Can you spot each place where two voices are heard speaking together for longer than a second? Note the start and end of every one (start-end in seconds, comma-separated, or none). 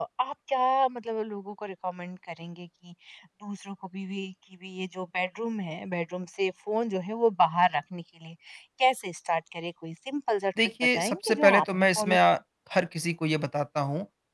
10.6-12.2